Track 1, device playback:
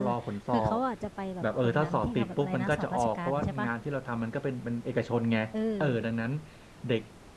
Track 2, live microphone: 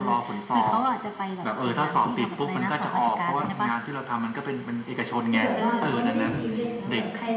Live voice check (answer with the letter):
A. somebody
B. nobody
A